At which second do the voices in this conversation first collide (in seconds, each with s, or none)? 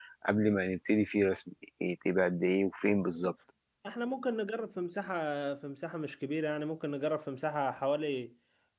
none